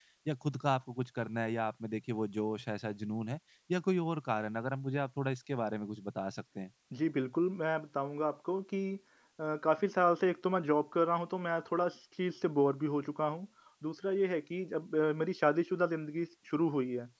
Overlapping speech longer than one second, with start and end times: none

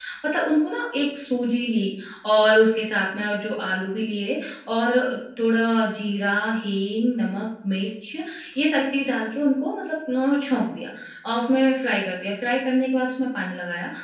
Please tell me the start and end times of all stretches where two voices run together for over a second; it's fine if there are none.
none

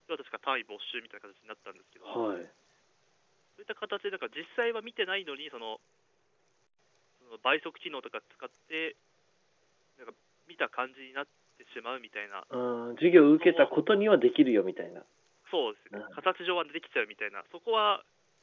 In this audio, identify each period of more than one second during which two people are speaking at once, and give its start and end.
none

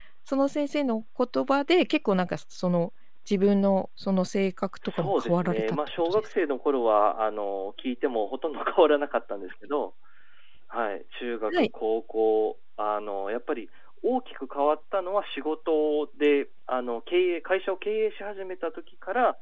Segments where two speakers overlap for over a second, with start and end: 5.0-6.2

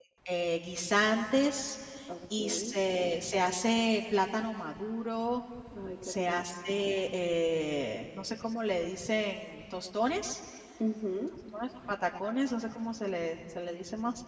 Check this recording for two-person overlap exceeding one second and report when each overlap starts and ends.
none

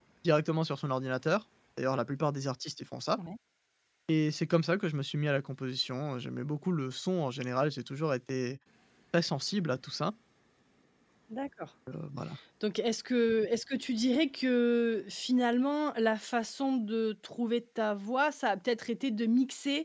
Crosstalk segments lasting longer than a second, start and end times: none

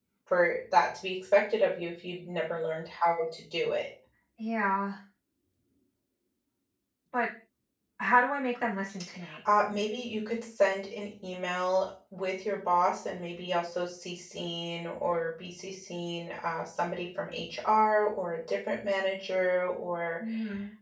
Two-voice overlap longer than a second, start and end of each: none

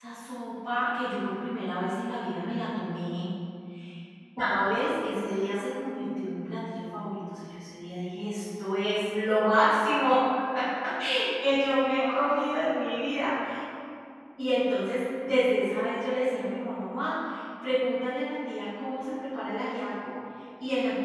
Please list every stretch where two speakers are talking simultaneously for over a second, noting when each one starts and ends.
11.9-13.2

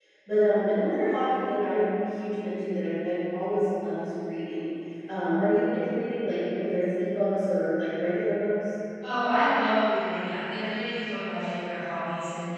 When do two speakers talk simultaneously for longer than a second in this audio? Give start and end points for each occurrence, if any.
none

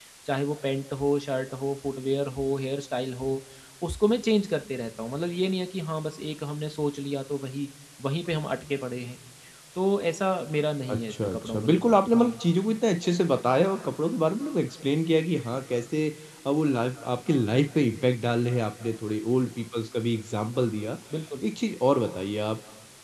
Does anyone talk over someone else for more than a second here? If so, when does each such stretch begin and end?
10.9-12.3

